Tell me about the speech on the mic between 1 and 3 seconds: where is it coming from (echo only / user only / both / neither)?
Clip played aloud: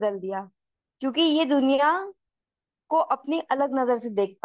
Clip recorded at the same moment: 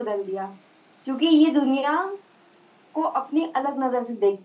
echo only